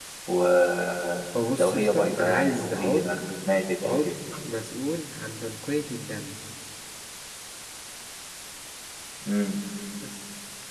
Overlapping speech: Yes, from 1.6 s

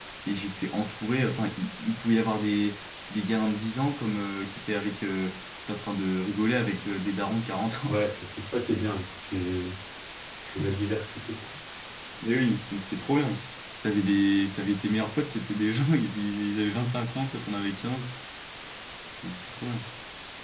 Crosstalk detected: No

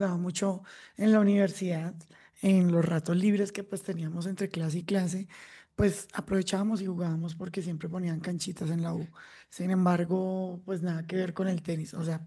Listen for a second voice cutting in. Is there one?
No

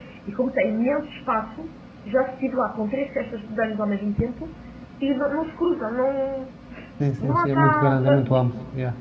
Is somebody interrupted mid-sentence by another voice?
Yes, from 7.2 s

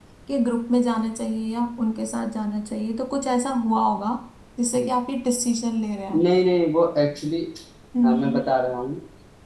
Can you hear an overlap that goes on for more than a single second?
No

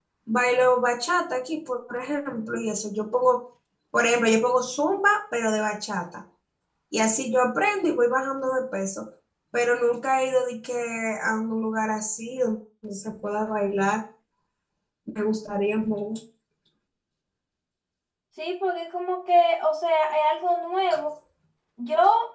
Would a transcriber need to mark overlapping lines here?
No

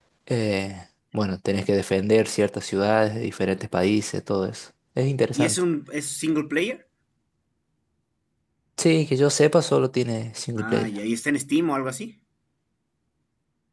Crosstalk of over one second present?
No

